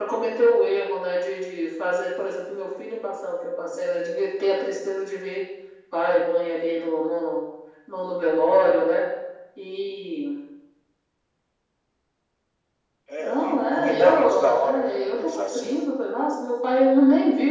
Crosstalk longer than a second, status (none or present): present